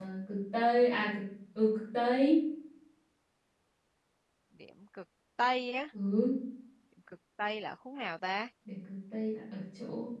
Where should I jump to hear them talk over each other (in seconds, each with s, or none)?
none